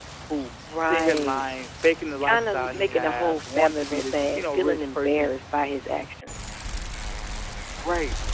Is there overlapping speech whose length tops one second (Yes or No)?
Yes